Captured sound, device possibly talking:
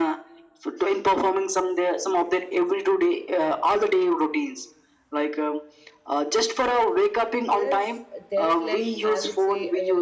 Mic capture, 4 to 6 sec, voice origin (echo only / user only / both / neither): echo only